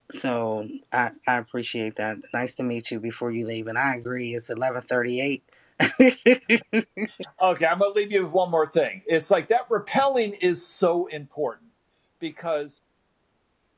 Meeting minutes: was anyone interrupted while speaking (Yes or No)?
No